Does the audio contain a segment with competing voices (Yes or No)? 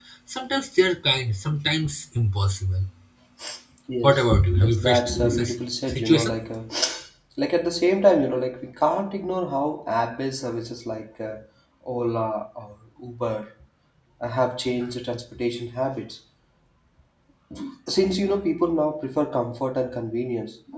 Yes